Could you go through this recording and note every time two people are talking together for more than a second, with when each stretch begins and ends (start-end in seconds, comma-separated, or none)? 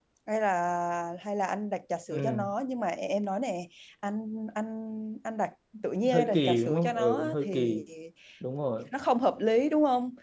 6.1-7.8